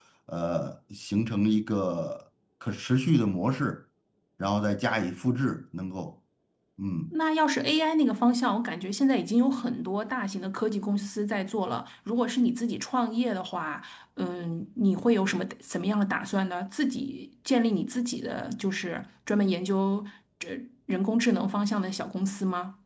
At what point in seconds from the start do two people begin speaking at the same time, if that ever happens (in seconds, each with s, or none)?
none